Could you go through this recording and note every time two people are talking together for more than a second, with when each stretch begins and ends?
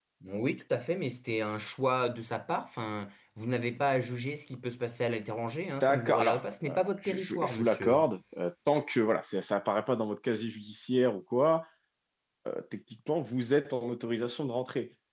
5.8-8.1

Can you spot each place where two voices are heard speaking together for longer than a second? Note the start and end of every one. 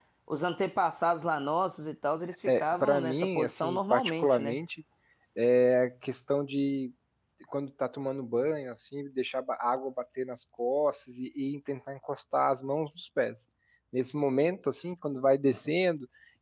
2.5-4.6

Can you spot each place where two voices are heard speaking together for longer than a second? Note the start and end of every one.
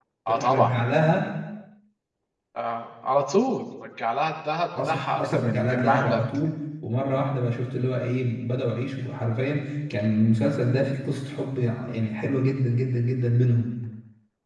4.8-6.2

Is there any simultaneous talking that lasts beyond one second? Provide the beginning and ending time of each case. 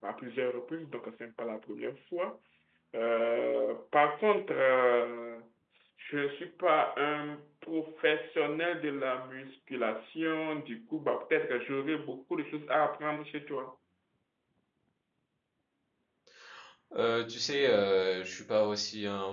none

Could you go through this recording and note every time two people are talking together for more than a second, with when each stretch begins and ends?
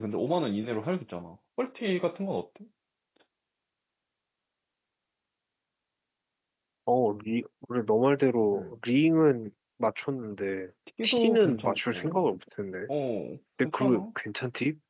11.0-12.3

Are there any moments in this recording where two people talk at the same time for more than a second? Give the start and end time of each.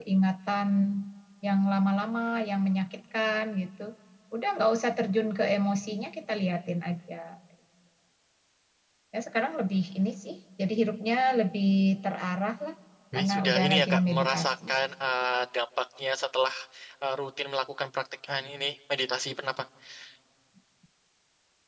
13.2-14.5

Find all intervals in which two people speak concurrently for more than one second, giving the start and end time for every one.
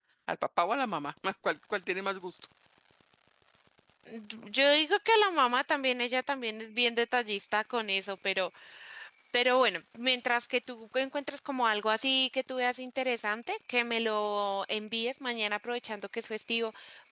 none

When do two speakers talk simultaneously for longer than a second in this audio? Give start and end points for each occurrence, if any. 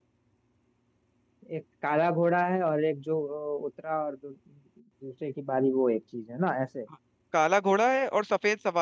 none

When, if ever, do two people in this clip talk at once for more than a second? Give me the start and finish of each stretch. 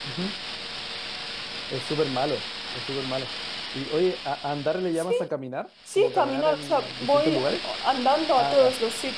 5.9-7.6

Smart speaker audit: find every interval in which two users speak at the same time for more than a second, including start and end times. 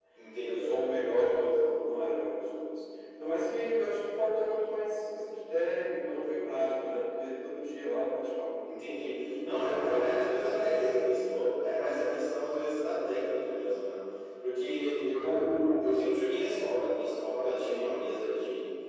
8.6-10.8

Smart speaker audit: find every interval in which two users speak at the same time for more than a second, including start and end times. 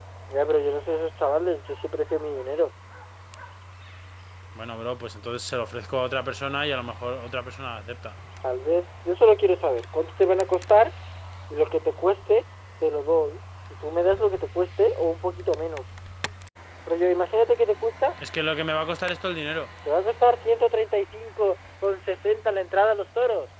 none

